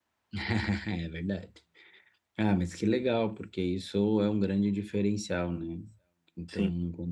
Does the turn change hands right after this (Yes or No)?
No